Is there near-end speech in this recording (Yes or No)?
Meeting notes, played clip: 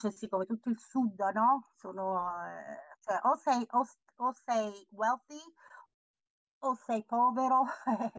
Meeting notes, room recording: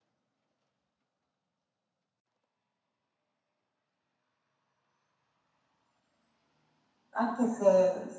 Yes